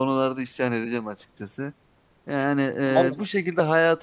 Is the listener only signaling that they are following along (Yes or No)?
Yes